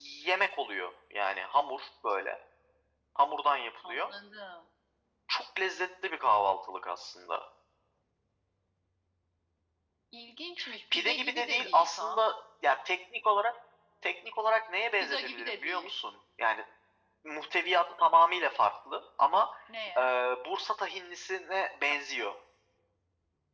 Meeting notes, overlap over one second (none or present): present